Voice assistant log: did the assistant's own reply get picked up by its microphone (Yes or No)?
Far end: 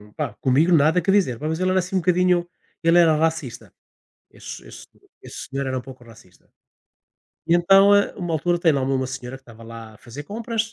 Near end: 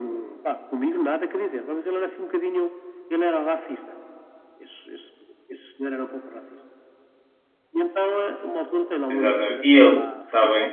Yes